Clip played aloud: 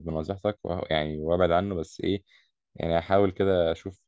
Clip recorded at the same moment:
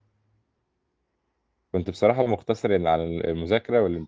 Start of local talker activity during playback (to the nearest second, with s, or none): 2 s